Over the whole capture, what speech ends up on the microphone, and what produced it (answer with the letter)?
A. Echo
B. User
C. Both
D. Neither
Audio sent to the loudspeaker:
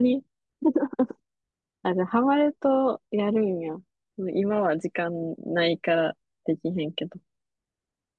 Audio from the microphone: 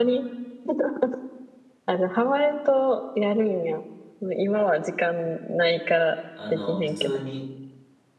C